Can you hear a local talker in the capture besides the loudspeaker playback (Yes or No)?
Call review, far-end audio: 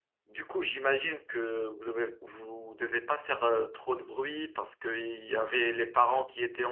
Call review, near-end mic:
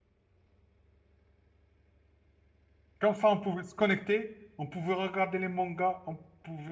Yes